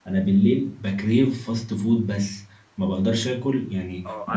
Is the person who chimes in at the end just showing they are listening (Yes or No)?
No